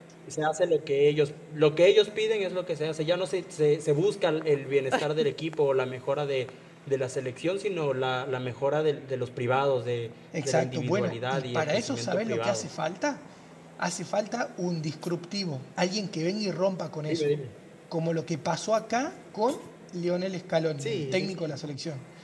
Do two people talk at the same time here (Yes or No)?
Yes